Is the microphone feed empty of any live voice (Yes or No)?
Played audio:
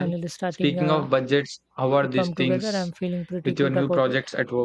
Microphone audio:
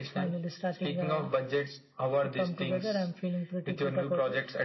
Yes